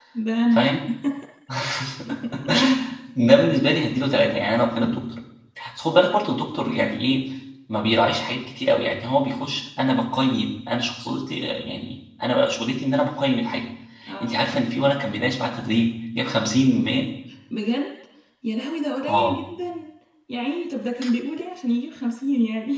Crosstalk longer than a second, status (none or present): none